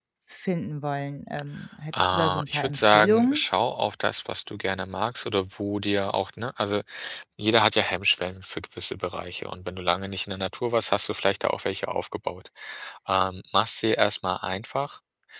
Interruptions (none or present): present